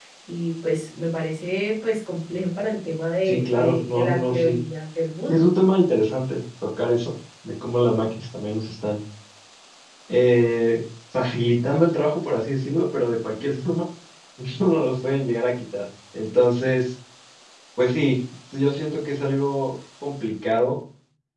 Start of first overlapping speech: 3.2 s

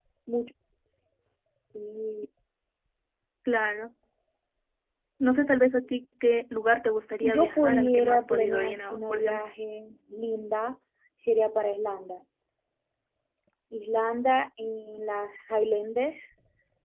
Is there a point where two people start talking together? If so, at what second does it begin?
7.2 s

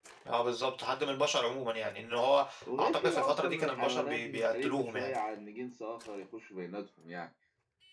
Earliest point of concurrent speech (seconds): 2.7 s

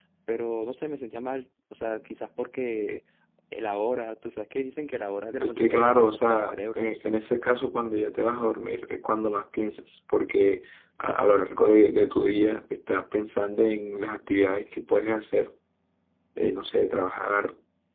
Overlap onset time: 5.4 s

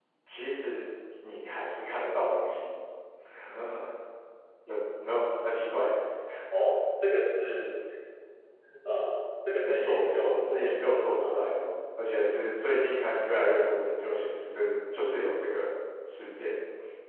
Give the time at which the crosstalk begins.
9.6 s

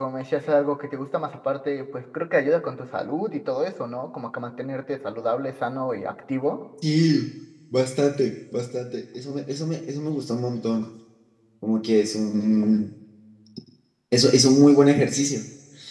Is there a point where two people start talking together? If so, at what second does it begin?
none

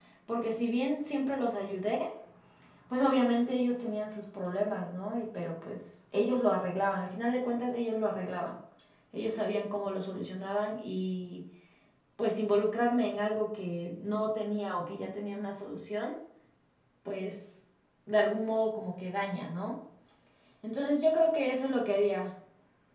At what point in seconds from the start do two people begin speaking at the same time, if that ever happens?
none

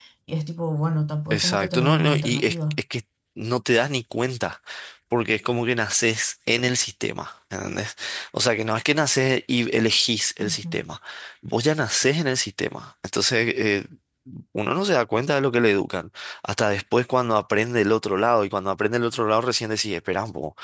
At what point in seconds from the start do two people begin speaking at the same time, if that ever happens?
1.3 s

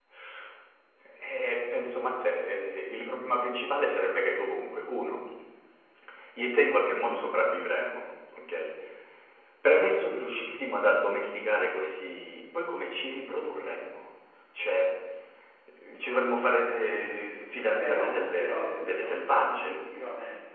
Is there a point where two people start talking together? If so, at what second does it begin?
17.8 s

